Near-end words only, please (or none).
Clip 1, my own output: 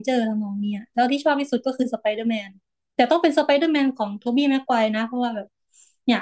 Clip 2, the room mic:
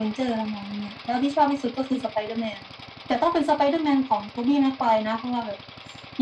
none